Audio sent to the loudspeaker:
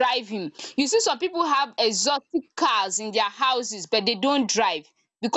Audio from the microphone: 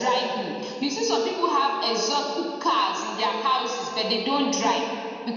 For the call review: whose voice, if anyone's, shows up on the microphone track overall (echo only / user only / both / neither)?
echo only